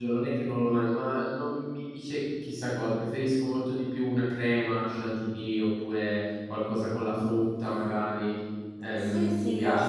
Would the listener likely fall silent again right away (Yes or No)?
No